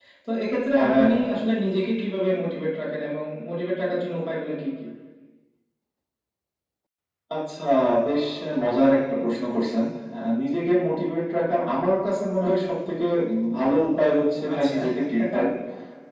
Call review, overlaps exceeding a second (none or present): none